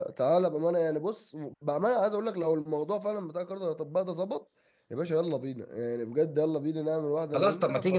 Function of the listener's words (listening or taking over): taking over